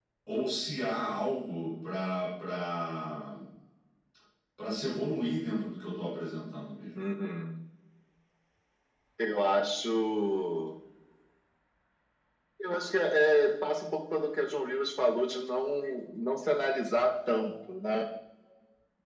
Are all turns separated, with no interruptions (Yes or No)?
Yes